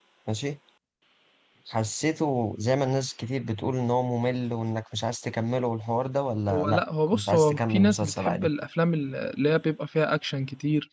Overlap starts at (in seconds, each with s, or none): 6.5 s